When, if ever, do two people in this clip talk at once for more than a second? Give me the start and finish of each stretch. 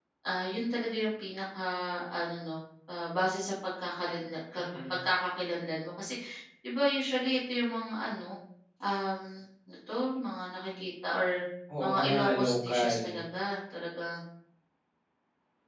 11.8-13.2

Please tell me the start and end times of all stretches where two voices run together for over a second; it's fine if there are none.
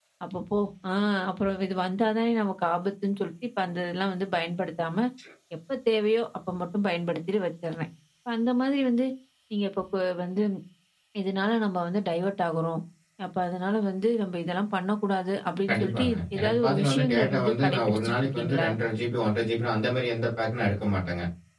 15.7-18.7

